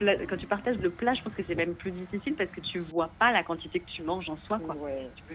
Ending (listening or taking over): taking over